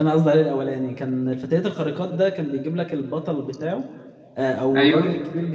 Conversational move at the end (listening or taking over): listening